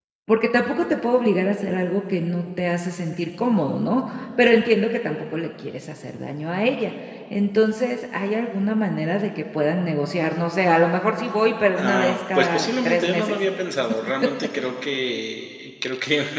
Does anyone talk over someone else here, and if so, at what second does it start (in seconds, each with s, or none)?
11.7 s